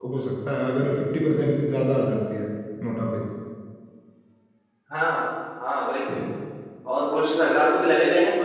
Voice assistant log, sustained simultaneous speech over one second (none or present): none